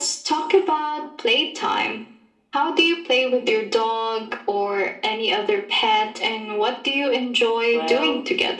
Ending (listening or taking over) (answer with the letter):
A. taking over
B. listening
A